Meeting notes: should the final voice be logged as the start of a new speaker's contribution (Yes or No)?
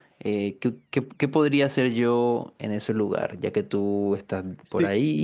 Yes